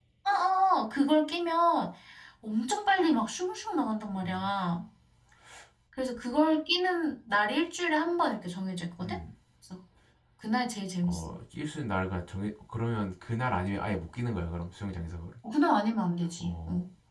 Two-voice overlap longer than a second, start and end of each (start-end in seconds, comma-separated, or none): none